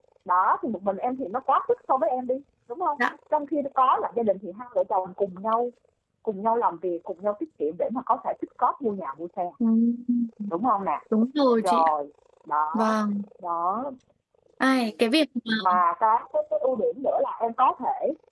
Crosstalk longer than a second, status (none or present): none